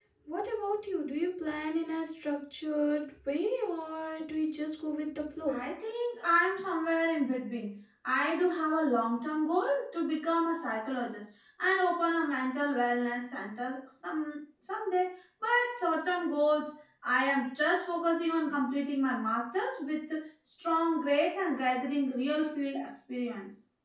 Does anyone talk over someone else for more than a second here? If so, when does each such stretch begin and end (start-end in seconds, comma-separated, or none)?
none